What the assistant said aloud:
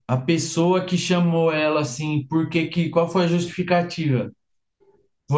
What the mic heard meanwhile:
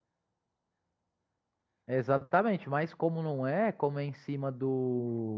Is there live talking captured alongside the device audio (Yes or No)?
Yes